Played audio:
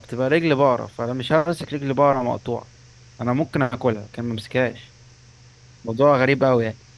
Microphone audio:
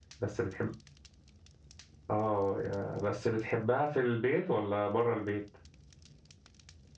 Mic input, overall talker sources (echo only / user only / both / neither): user only